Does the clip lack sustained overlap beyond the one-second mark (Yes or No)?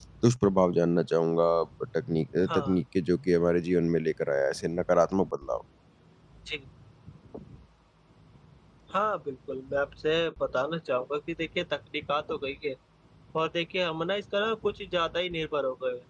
Yes